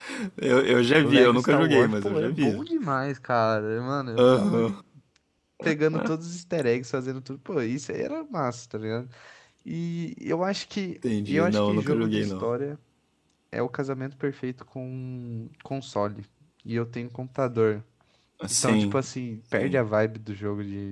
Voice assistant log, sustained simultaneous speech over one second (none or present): present